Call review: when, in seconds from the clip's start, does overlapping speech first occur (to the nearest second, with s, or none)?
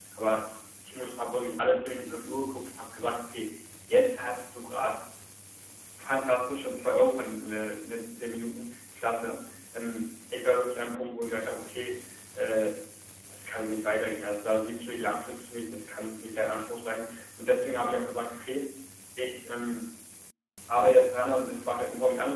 none